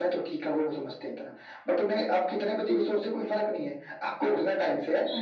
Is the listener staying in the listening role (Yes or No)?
Yes